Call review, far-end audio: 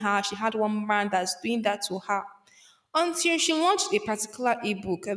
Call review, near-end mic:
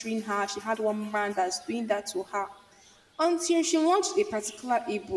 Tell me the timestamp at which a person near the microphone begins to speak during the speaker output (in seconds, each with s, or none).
none